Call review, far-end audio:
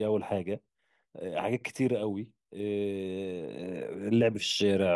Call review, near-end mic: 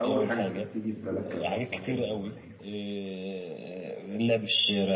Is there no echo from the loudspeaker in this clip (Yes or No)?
No